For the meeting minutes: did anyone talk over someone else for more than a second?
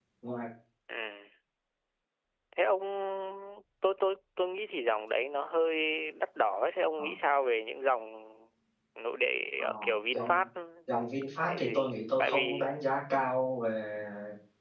Yes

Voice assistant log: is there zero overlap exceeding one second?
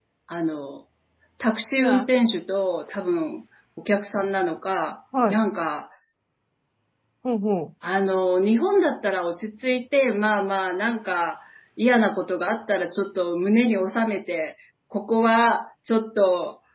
Yes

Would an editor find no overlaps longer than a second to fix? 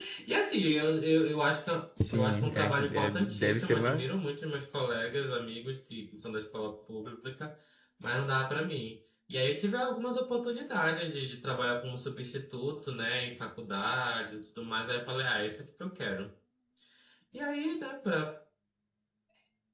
No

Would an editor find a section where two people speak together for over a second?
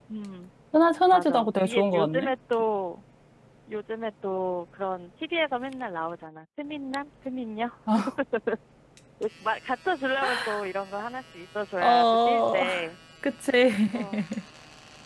Yes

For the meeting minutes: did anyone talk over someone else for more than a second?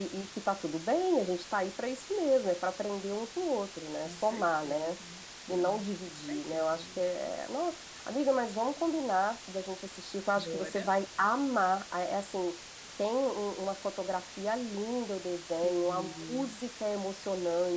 Yes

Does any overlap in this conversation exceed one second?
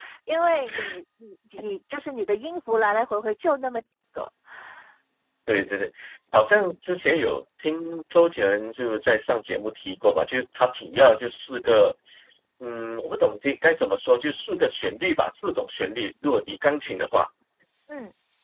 No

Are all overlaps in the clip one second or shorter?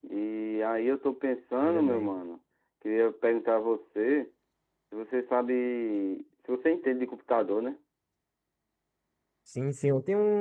Yes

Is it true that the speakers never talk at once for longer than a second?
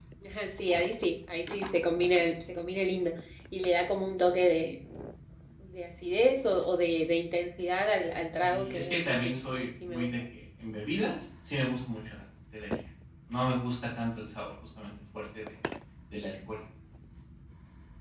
No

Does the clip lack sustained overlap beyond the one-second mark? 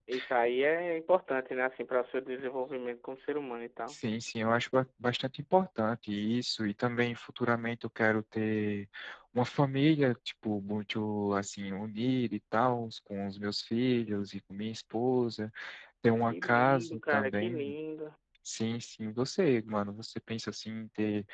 No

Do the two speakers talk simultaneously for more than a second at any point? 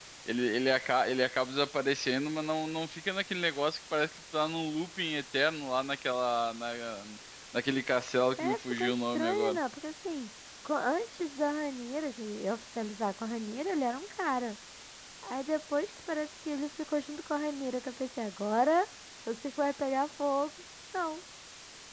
Yes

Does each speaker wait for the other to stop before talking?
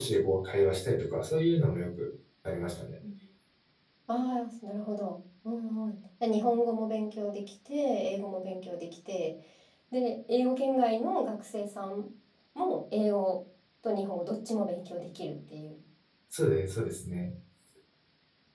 Yes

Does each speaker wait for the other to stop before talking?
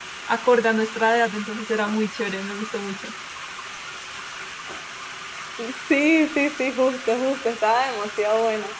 Yes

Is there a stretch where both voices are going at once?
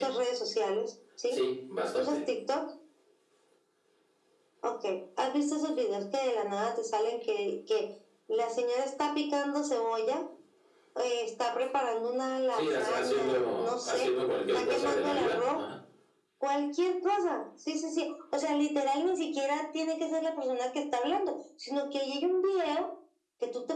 Yes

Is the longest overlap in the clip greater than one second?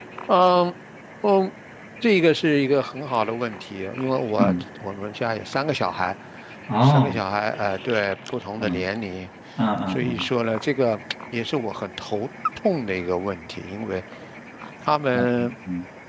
No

